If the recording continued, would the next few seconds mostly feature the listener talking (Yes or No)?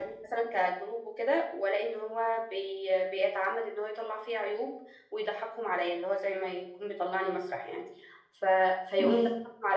No